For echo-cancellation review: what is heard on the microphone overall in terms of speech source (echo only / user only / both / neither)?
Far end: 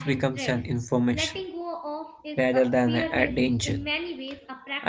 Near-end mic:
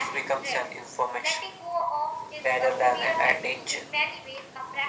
echo only